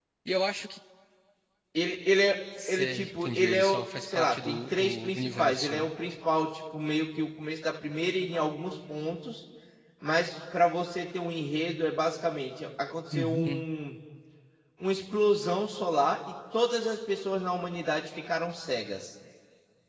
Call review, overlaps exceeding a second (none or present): present